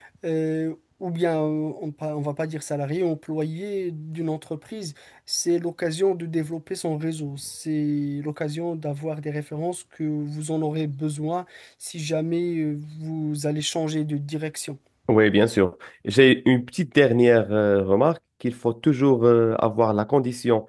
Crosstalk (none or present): none